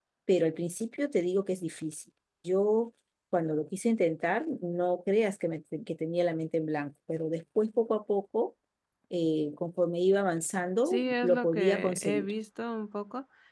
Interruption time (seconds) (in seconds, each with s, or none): 10.8 s